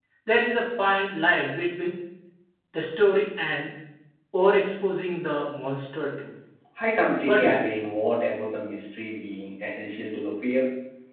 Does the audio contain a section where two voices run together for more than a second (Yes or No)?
No